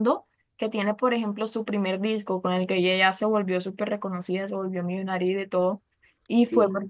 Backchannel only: Yes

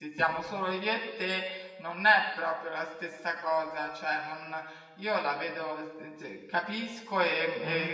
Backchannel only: Yes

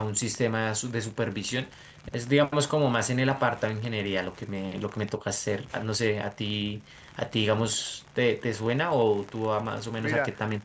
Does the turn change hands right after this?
Yes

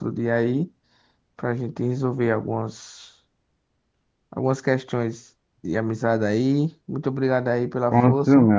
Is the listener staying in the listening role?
No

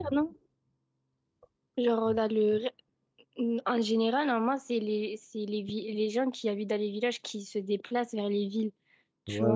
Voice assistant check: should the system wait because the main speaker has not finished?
No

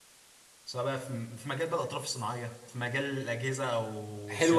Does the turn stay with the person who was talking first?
No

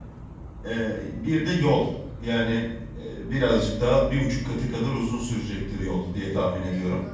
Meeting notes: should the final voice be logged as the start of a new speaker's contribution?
Yes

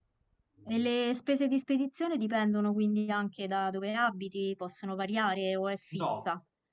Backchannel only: No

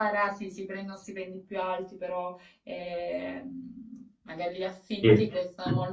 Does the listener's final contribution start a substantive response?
No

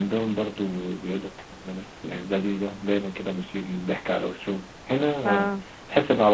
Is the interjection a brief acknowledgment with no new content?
Yes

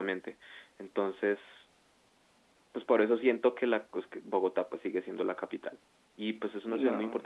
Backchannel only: Yes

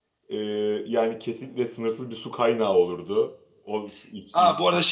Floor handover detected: Yes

